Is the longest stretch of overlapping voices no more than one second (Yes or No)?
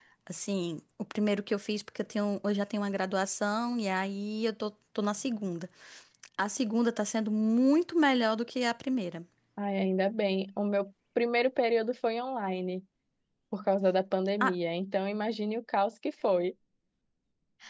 Yes